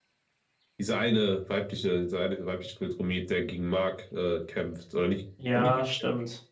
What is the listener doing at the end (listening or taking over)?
taking over